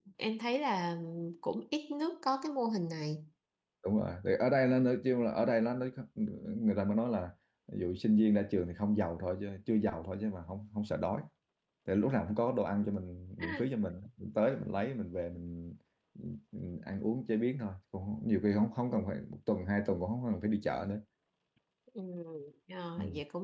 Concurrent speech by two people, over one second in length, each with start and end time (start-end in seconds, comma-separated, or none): none